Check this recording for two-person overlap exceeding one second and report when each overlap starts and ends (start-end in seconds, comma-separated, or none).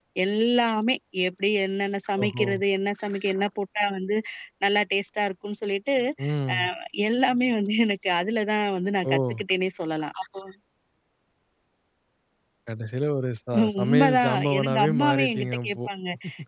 13.8-15.9